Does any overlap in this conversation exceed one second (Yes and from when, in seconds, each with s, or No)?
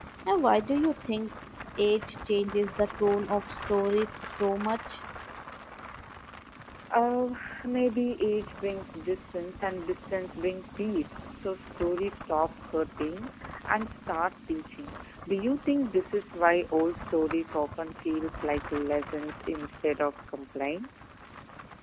No